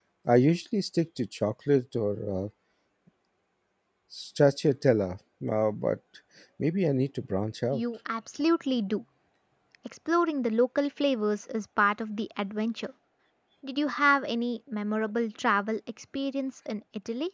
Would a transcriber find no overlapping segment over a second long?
Yes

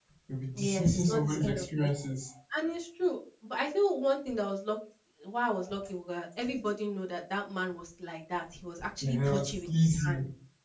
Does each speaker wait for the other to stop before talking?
No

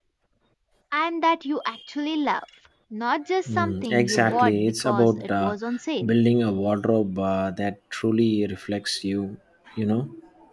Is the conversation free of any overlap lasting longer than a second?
No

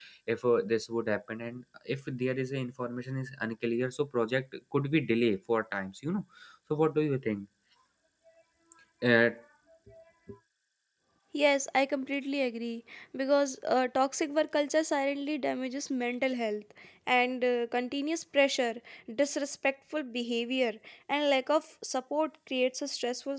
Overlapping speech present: No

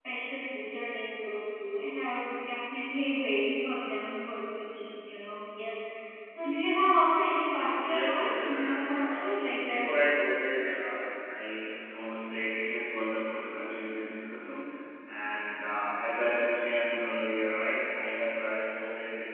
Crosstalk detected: Yes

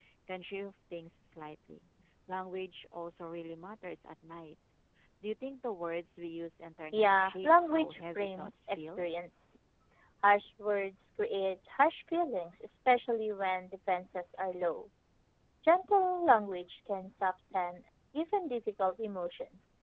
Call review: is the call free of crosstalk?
No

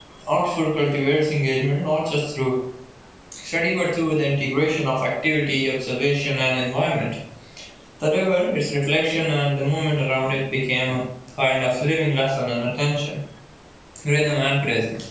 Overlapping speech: No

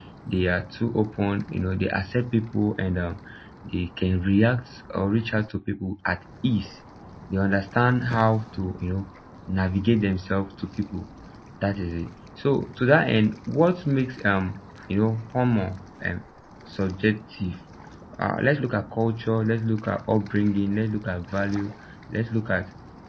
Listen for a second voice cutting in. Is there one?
No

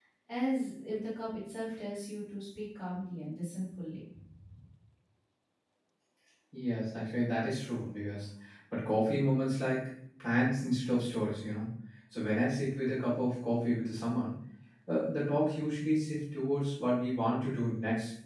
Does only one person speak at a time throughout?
Yes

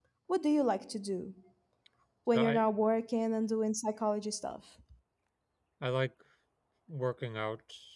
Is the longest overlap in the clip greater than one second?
No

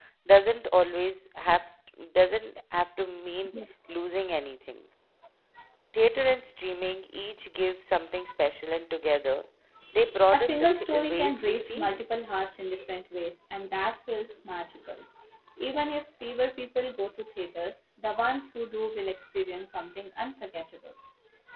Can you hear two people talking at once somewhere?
Yes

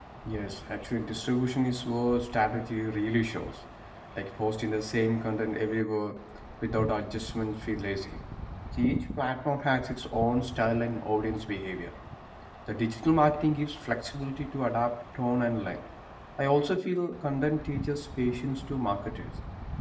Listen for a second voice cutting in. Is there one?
No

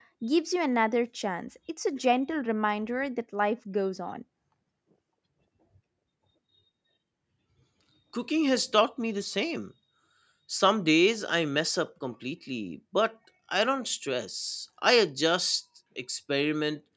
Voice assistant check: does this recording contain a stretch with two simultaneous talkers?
No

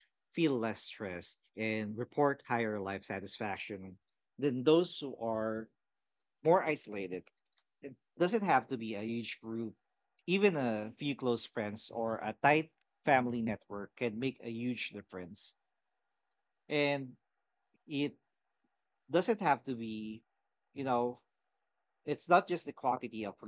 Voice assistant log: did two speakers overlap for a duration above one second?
No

